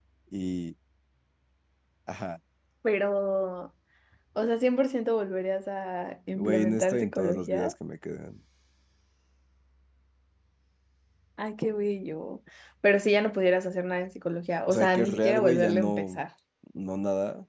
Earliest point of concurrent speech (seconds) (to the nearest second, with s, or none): 6 s